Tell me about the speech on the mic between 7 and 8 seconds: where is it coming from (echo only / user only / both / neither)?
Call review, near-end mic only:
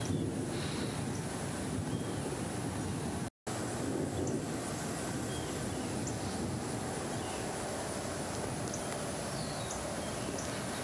neither